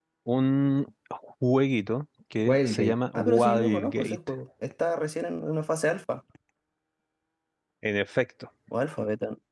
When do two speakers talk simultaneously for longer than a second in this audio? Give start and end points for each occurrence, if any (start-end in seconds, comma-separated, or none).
2.4-4.2